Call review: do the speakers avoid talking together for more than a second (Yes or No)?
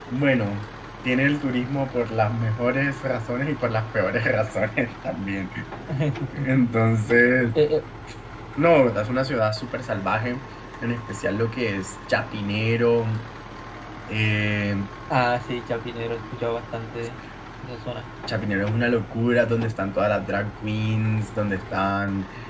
Yes